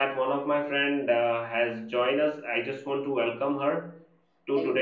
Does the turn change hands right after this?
No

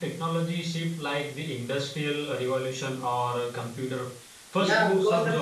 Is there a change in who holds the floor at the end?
Yes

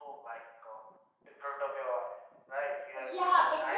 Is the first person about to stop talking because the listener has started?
Yes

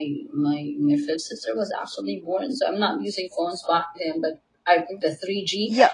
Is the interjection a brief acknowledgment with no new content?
No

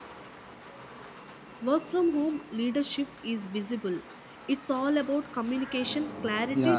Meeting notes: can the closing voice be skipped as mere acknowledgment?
No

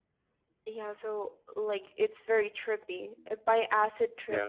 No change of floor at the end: Yes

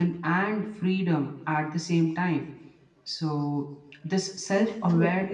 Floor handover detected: No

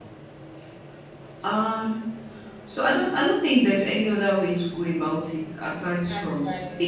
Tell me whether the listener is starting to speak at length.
No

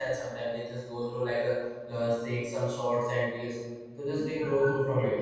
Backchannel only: No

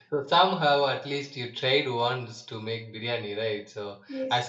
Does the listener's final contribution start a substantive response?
No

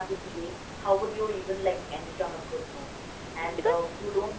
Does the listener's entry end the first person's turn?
No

